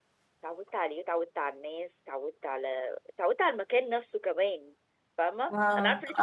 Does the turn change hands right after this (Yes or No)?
No